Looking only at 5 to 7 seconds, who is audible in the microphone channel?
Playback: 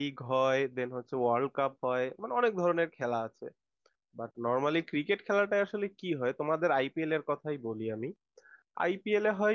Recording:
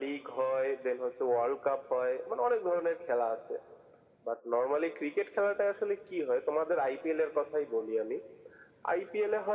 echo only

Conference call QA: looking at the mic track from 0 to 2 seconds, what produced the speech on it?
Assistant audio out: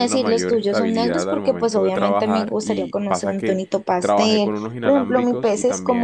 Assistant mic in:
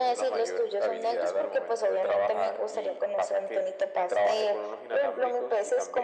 echo only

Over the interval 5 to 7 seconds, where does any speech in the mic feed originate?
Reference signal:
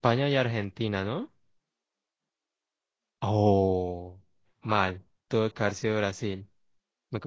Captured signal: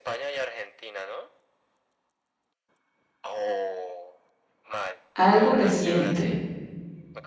both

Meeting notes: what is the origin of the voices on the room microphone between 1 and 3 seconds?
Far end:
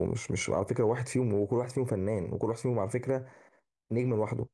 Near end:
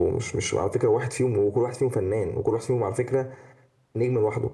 echo only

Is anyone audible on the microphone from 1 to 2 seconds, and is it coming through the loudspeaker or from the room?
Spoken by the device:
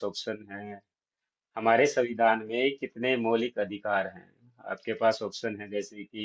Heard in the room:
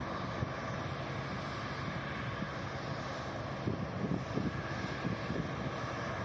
neither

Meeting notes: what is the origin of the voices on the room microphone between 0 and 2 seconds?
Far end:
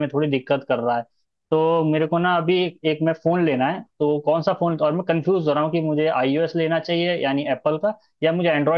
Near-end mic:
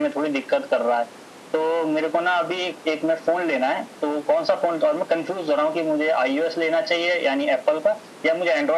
echo only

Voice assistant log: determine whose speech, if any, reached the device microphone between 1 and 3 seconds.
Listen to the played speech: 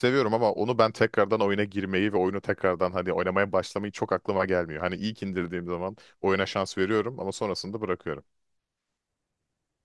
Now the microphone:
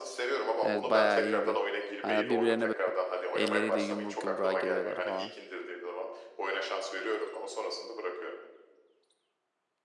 both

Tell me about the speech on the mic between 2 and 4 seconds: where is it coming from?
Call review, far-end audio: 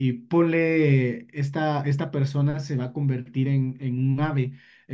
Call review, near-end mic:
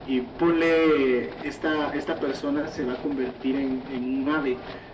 echo only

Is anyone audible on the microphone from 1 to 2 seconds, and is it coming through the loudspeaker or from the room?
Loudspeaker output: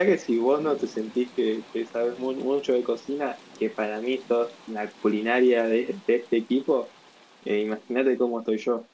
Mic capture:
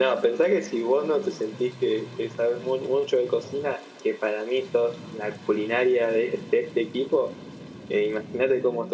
echo only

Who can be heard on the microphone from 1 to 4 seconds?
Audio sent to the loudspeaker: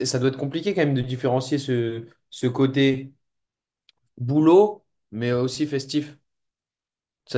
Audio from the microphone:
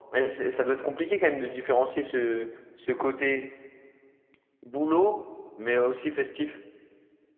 echo only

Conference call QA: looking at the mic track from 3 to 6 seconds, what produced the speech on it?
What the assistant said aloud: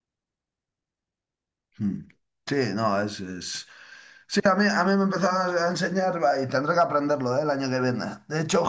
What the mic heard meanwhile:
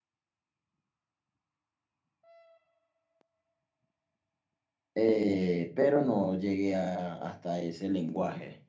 user only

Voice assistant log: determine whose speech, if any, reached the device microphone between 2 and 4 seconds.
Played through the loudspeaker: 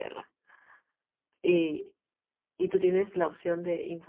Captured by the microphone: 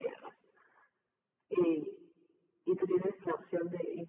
echo only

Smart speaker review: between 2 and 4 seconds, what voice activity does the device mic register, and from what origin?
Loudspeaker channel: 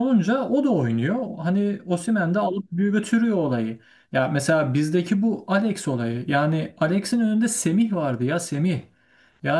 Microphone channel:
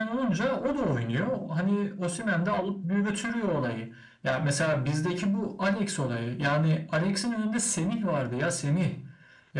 echo only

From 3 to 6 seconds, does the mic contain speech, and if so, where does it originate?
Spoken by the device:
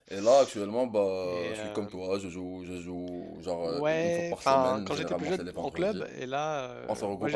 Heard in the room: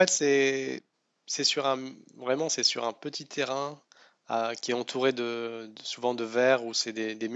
user only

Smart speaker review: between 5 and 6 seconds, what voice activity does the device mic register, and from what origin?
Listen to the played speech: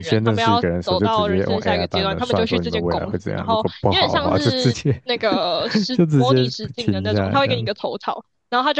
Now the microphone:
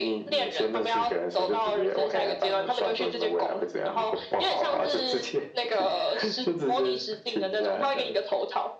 echo only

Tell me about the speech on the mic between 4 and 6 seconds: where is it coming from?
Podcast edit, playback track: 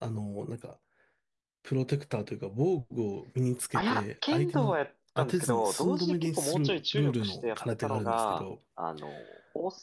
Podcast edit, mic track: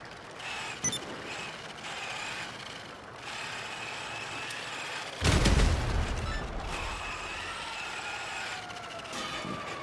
neither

